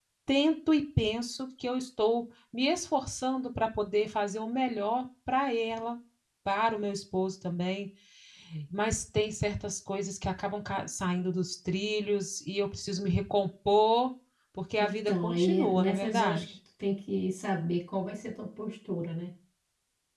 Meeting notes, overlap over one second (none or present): present